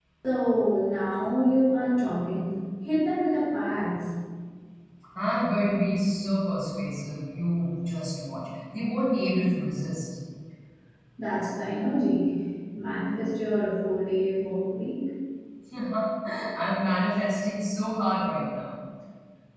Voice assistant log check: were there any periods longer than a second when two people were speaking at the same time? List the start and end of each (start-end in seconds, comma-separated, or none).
none